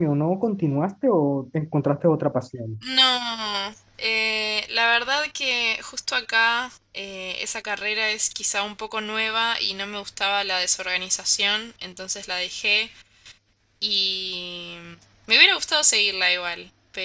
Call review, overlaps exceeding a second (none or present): none